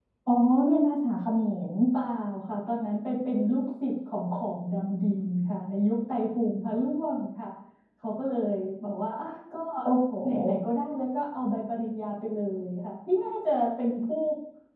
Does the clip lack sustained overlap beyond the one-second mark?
Yes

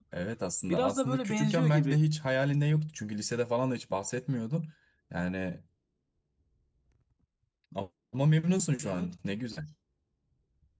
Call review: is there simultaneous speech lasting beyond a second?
Yes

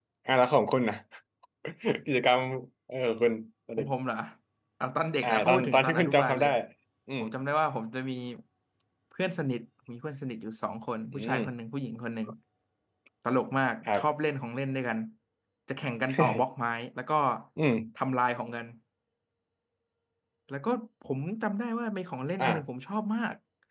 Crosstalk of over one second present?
Yes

